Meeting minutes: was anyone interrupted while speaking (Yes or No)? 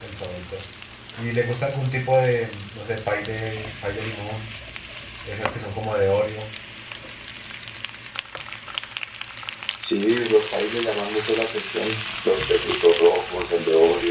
No